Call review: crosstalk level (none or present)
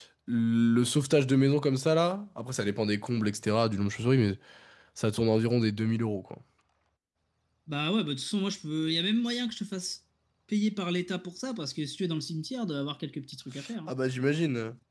none